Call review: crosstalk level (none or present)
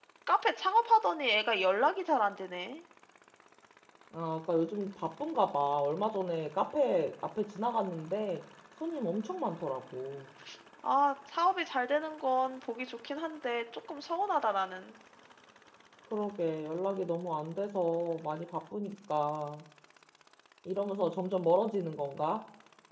none